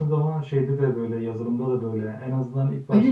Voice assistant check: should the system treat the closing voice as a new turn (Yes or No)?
No